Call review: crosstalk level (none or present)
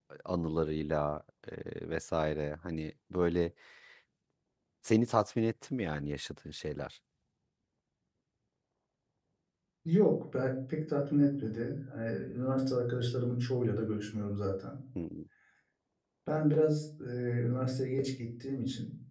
none